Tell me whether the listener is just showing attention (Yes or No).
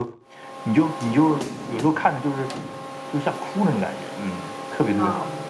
No